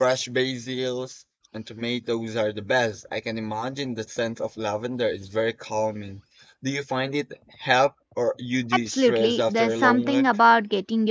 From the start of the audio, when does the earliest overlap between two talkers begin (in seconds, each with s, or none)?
8.9 s